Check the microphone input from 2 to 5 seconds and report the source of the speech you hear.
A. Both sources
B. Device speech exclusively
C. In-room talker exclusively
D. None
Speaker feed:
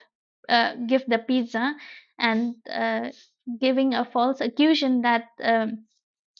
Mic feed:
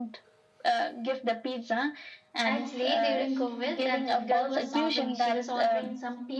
A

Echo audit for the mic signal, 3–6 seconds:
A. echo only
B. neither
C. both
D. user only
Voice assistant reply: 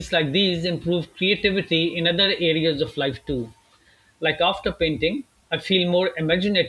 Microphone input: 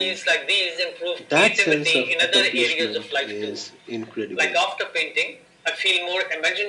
C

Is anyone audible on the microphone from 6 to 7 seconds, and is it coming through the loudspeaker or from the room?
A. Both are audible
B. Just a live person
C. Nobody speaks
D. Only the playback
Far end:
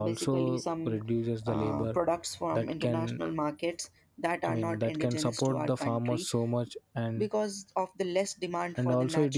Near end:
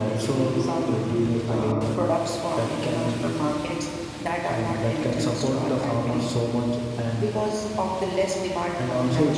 D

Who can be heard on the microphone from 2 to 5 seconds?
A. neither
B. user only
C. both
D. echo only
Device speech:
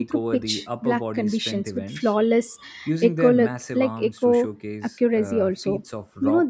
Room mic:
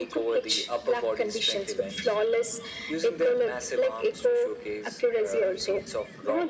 D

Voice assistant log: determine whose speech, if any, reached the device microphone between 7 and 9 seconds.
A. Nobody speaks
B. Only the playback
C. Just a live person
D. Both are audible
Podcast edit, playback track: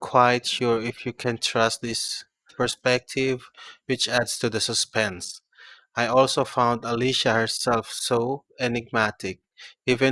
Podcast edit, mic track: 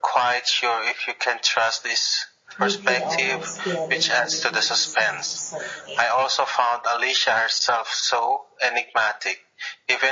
B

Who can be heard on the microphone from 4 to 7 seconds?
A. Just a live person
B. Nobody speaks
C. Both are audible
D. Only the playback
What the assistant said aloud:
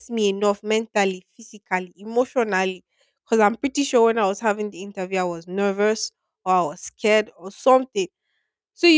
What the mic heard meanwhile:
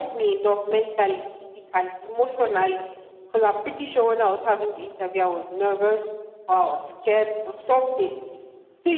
D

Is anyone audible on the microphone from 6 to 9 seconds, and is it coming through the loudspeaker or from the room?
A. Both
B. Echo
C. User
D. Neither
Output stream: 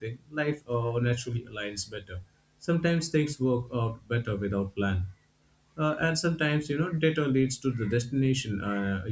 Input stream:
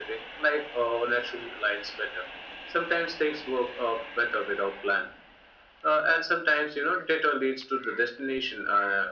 B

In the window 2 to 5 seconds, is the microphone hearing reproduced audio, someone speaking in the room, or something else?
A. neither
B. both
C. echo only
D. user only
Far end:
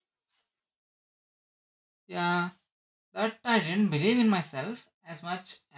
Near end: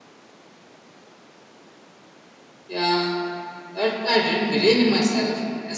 C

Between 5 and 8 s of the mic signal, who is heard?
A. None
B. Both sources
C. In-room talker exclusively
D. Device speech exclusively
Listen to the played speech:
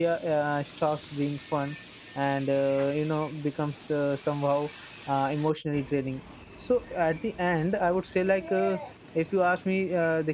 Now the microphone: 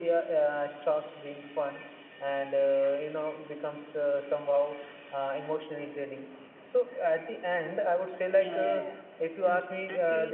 D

